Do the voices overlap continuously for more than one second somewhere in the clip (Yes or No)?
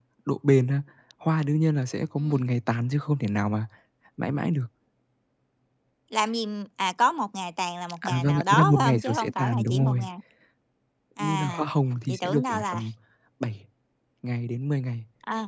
Yes